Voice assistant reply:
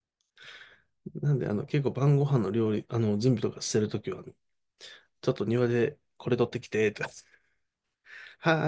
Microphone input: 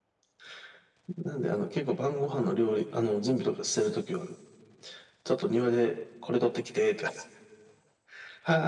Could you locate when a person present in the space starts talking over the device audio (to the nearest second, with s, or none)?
none